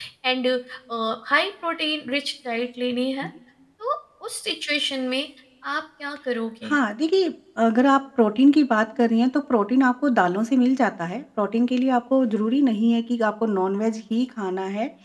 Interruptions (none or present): none